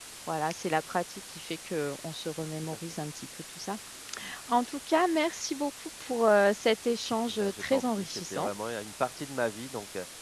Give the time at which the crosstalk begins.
7.3 s

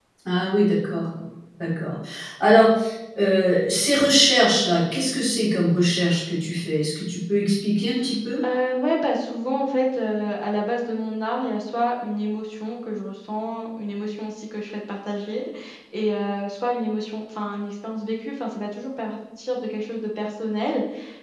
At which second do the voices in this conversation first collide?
none

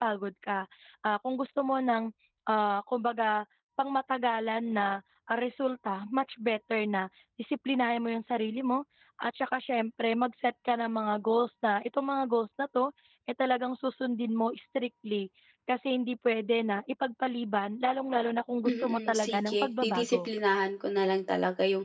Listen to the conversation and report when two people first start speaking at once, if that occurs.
18.6 s

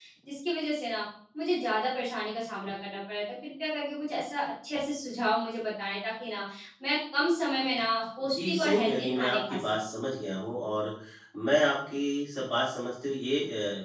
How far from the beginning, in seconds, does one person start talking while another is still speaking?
8.2 s

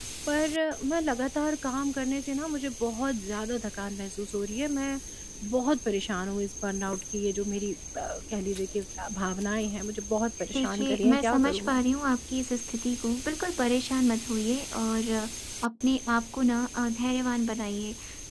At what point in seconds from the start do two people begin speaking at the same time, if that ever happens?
10.5 s

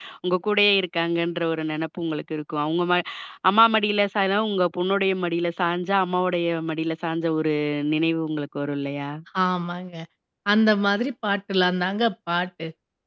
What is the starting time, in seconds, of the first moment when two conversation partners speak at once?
none

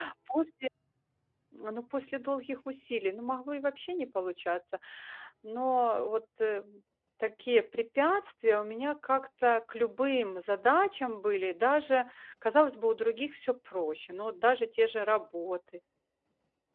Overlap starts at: none

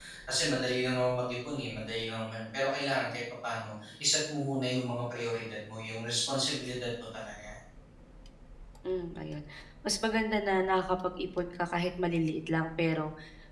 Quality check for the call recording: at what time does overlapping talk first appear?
none

